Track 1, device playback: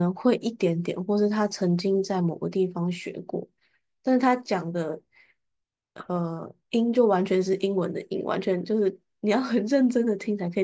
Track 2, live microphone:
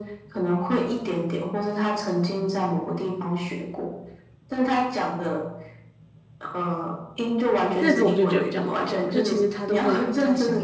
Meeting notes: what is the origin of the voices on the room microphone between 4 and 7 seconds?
echo only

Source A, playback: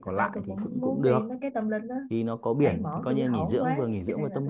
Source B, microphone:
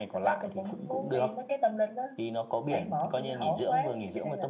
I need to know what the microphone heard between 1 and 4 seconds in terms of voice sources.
echo only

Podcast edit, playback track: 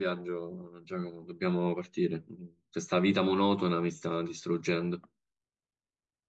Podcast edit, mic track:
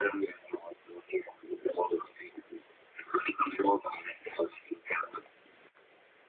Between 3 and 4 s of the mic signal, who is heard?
echo only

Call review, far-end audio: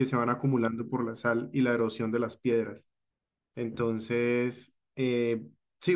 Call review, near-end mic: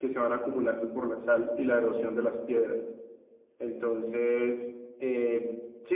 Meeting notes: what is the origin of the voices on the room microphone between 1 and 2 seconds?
echo only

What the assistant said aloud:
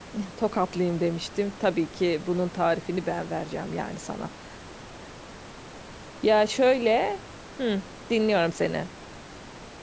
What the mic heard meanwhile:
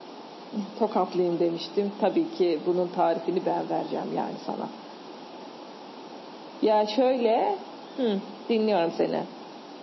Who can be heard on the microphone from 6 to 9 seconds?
echo only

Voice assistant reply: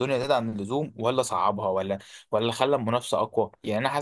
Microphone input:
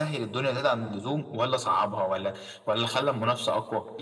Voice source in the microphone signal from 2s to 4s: echo only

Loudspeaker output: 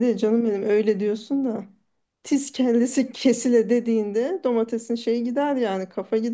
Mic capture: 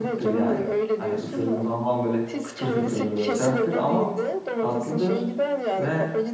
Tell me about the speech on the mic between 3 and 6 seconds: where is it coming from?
both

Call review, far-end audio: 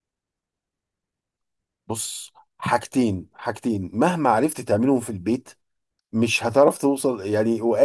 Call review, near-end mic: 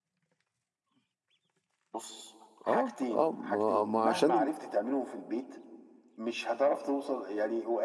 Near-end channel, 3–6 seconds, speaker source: both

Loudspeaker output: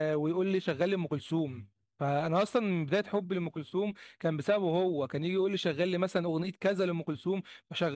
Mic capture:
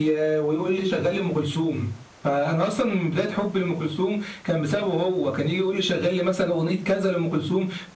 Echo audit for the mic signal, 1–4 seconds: echo only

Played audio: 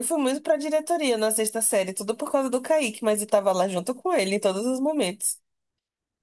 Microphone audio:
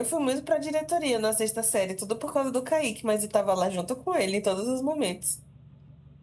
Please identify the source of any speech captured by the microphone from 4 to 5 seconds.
echo only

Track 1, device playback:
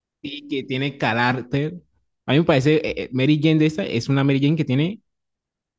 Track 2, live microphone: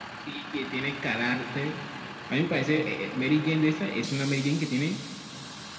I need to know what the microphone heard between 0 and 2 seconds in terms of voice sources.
echo only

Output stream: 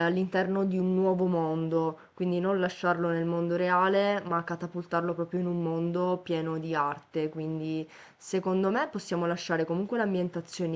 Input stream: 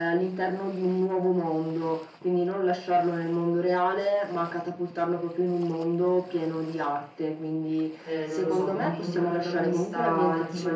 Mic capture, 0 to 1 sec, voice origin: echo only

